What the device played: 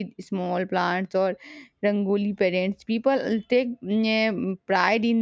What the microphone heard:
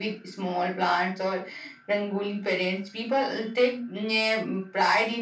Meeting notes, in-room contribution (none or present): none